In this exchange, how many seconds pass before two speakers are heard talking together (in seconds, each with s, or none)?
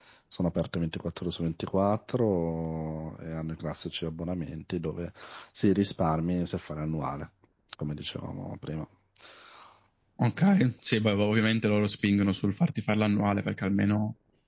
none